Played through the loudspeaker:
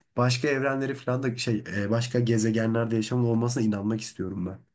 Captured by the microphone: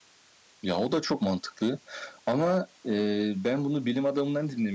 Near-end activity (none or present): present